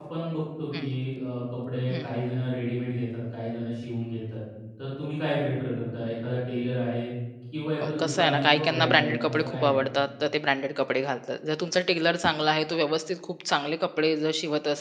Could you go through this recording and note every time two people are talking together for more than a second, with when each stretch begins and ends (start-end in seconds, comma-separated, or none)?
7.8-9.8